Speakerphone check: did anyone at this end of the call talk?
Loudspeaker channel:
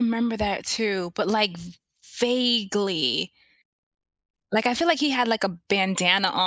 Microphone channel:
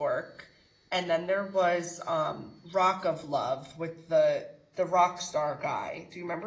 Yes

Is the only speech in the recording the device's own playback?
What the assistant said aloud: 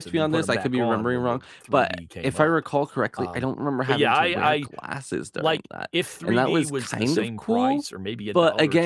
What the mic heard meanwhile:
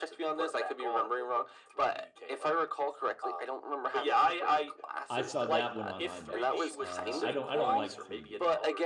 No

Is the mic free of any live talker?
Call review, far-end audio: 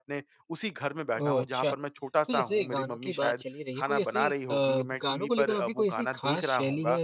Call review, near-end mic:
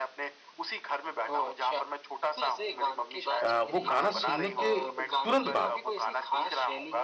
No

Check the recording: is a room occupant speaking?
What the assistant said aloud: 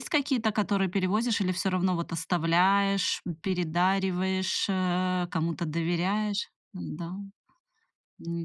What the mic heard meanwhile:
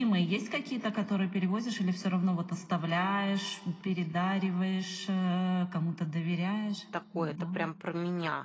Yes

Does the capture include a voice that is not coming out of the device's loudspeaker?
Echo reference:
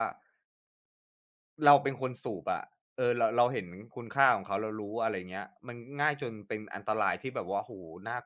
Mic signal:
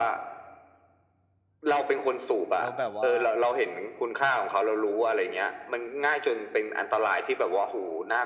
Yes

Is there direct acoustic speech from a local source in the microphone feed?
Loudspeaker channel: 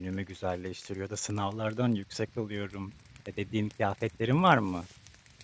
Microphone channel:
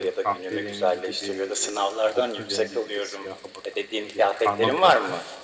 Yes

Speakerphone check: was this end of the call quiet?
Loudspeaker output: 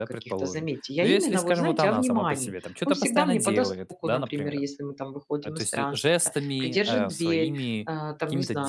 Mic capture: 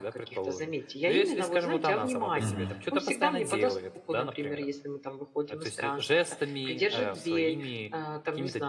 No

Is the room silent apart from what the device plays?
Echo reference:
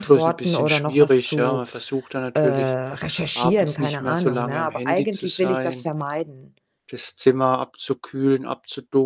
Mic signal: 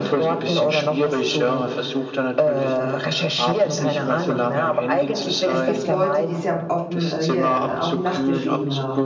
No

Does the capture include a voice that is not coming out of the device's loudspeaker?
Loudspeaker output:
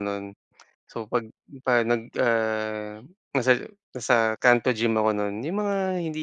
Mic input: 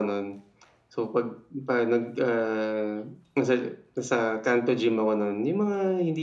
No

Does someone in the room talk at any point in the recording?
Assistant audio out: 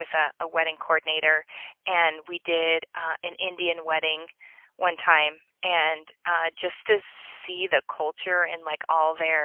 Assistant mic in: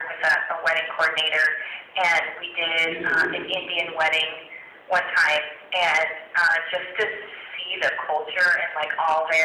Yes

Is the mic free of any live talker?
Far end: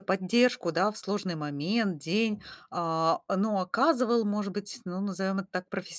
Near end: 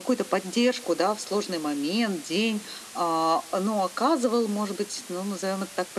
Yes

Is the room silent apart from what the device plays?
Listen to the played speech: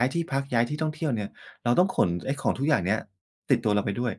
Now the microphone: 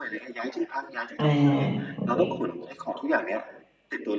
No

